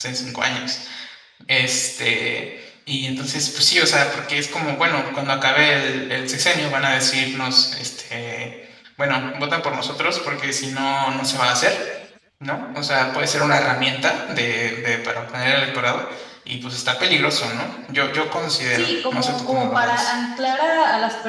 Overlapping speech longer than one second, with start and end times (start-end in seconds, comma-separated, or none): 18.7-20.1